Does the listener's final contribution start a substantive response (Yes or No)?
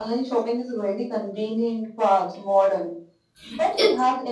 No